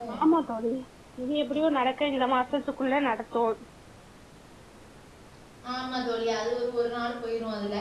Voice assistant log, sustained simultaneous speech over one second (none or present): none